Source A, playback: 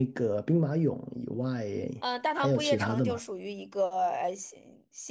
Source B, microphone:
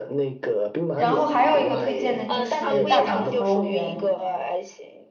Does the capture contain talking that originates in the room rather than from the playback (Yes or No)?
Yes